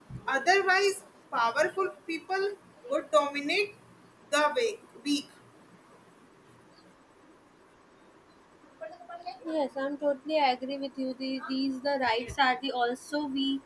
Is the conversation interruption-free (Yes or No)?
Yes